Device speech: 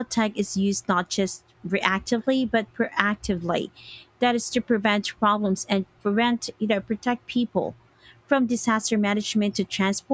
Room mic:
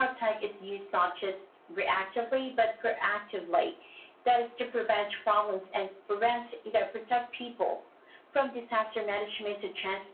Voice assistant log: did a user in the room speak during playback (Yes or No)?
No